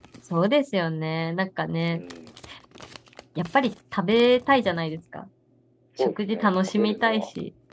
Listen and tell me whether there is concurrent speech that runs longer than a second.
Yes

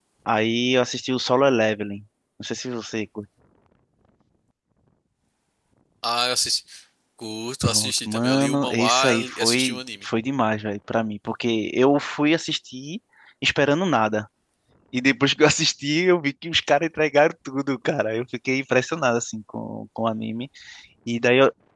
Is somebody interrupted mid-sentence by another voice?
Yes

